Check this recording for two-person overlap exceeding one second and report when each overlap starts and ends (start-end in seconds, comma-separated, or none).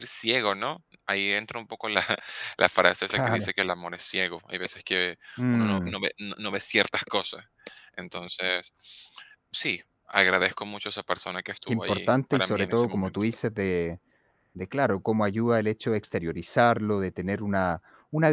11.7-13.1